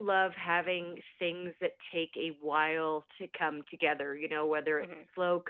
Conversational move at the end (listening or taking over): listening